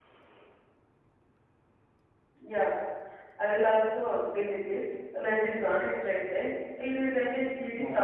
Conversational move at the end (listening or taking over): listening